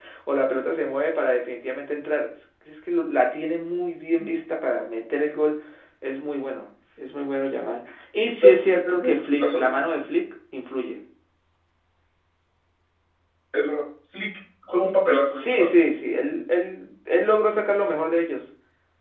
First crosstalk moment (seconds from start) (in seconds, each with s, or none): 8.4 s